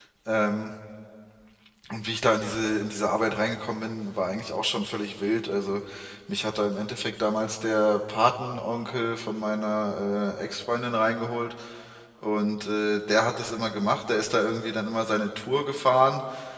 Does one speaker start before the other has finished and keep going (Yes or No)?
No